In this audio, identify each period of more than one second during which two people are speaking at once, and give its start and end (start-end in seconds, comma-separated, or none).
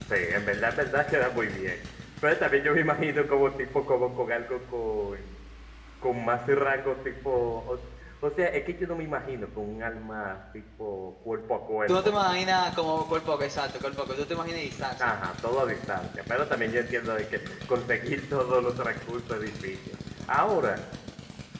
none